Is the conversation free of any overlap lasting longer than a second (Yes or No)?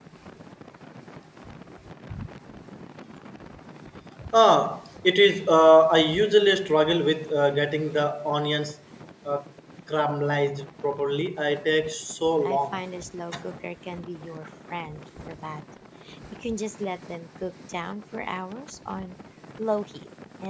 Yes